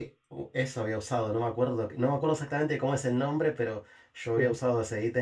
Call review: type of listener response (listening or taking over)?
listening